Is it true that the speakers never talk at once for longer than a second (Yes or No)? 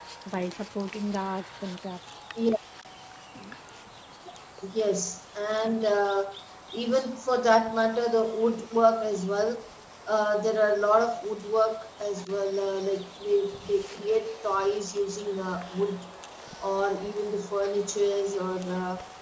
Yes